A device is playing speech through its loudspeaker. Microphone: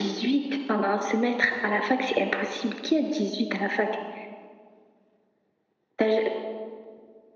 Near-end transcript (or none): none